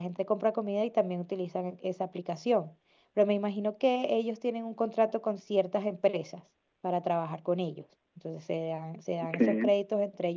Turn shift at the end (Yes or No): No